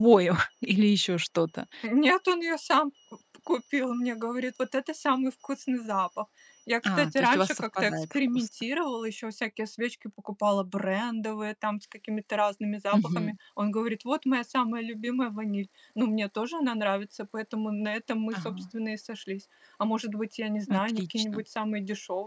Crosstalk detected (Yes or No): Yes